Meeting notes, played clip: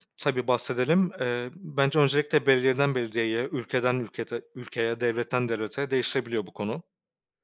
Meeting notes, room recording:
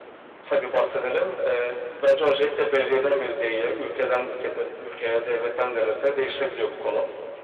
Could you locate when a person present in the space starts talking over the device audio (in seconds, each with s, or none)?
none